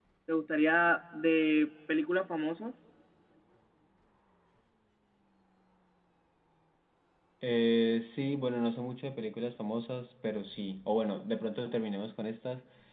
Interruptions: none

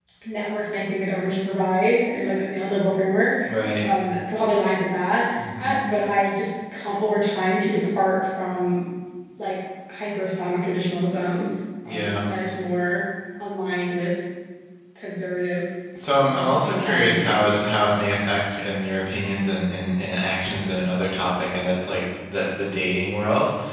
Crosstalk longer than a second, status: present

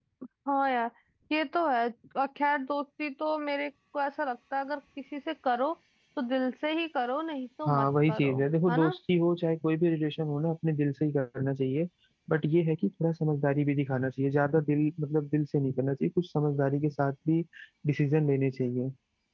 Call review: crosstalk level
present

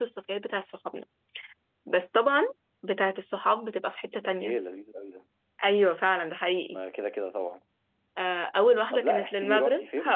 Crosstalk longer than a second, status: present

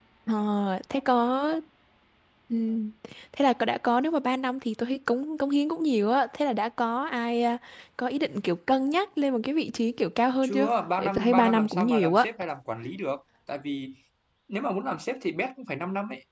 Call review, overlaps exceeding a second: present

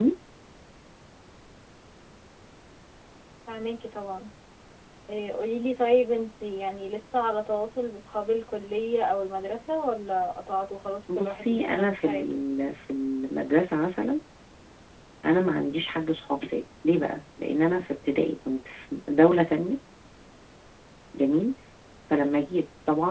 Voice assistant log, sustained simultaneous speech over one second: present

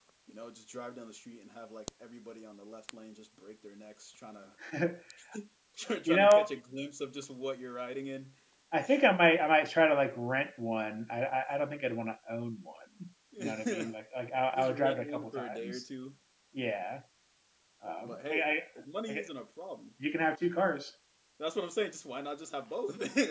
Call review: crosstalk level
present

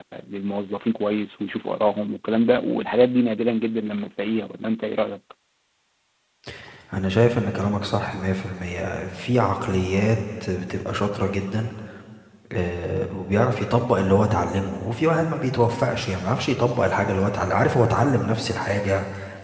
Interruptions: none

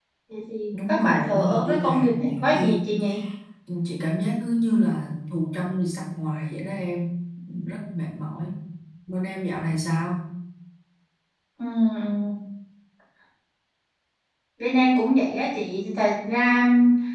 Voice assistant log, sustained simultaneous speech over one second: present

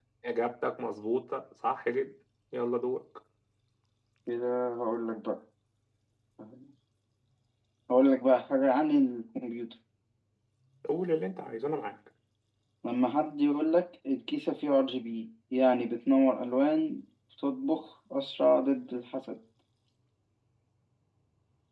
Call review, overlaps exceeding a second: none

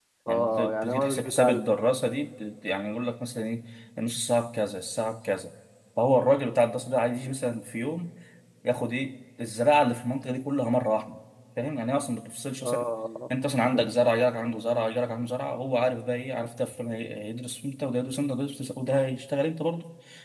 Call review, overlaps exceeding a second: present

